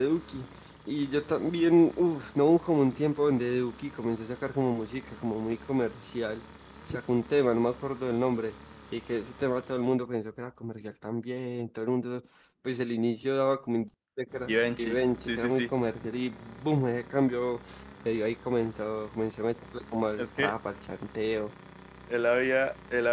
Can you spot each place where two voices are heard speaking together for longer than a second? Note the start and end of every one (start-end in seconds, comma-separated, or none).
14.5-15.7